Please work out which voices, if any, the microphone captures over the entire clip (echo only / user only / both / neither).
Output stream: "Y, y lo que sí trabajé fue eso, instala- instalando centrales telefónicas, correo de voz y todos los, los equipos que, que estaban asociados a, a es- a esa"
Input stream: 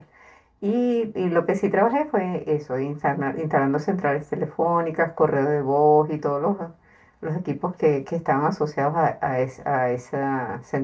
echo only